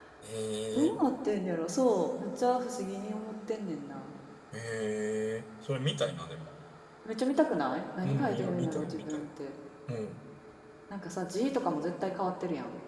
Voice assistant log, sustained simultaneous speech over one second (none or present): present